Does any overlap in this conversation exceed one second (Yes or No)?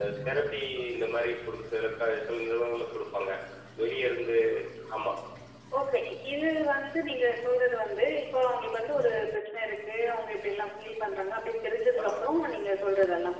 No